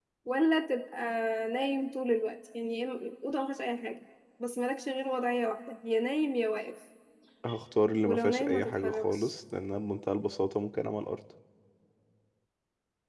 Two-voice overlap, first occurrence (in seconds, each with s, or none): 8.0 s